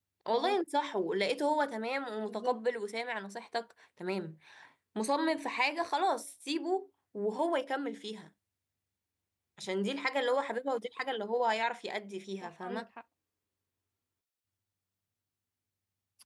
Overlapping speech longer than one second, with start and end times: none

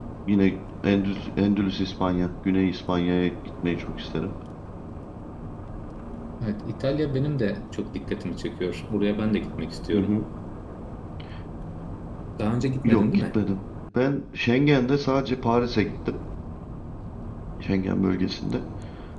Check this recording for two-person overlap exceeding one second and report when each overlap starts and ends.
none

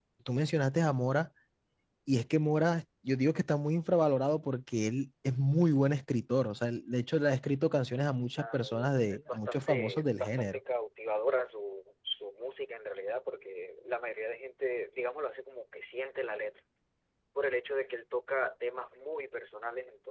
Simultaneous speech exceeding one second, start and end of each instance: 8.3-10.6

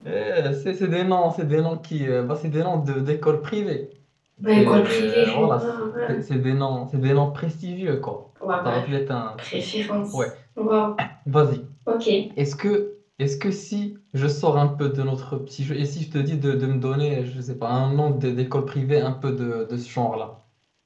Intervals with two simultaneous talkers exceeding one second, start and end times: 4.5-6.2

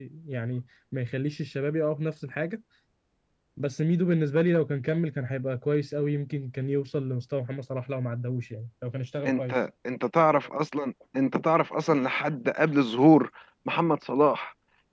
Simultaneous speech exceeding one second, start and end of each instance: none

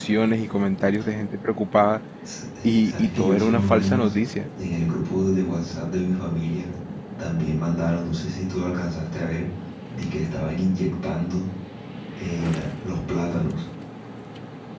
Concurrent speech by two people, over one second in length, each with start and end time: 2.6-4.1

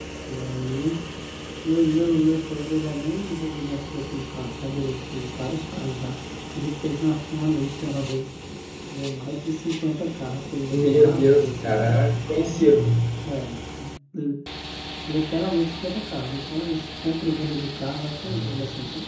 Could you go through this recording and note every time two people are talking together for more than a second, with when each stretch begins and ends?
10.7-12.0

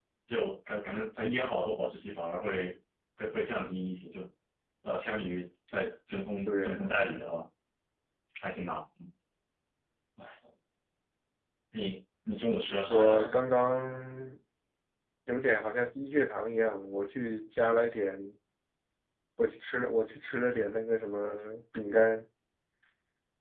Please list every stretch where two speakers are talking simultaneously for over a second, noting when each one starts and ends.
none

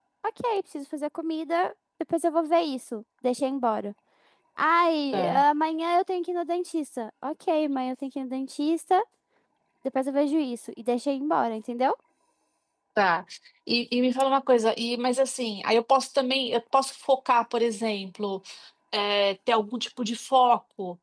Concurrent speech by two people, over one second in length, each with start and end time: none

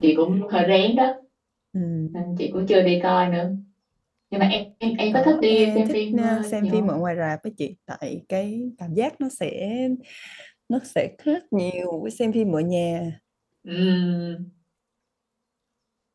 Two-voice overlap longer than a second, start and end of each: 5.1-7.0

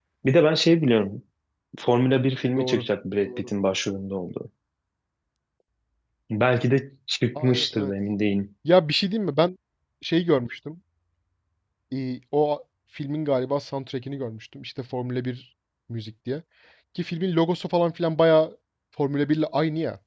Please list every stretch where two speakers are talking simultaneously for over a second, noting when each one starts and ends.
none

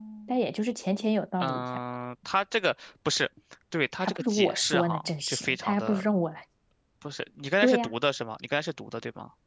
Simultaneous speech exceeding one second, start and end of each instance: 4.0-6.1

